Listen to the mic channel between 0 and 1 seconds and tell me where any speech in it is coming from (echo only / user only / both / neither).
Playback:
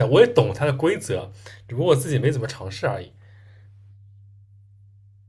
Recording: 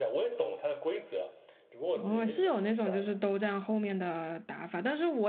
echo only